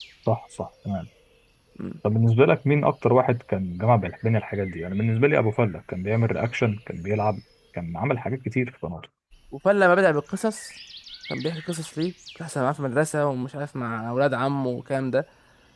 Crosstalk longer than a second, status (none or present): none